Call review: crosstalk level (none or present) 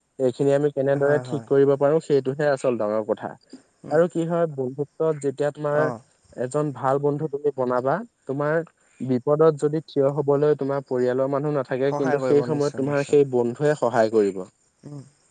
present